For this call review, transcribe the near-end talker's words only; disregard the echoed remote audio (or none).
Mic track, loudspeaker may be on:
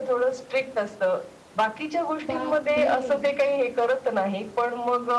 बापरे!